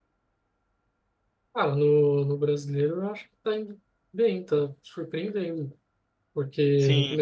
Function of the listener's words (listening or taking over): listening